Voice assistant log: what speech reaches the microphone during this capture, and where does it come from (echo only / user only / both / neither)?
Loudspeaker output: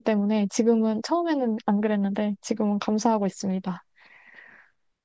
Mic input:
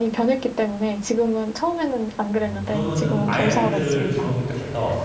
both